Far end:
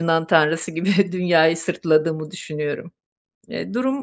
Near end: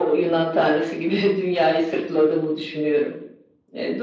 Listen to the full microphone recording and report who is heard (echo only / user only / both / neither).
echo only